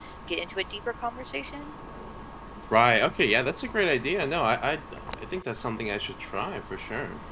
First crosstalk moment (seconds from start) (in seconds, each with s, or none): none